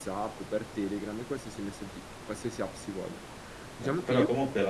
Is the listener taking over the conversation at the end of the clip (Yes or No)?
Yes